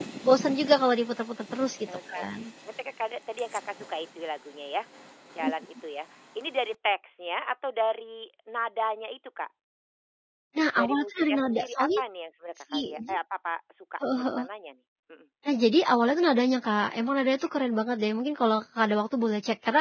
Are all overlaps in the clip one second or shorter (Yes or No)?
No